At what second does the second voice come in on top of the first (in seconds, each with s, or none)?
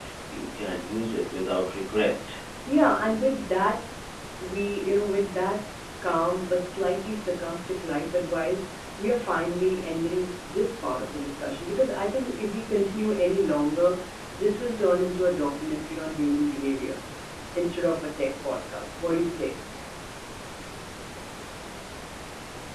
none